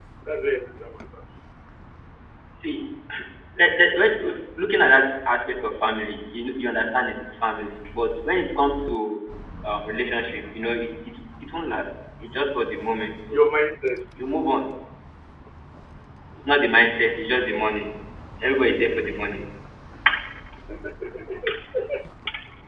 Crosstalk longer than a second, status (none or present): none